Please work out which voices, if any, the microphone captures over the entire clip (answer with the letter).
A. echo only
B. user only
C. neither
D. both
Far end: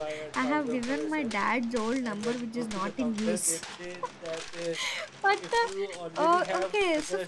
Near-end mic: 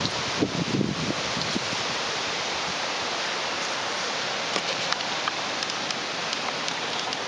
C